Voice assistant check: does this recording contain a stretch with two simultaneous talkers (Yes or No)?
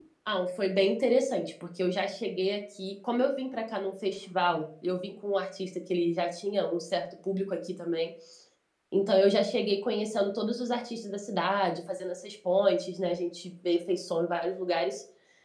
No